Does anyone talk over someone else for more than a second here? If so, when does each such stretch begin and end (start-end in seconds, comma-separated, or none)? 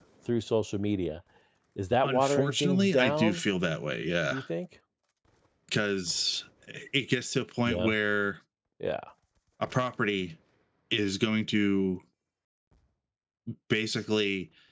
2.0-3.4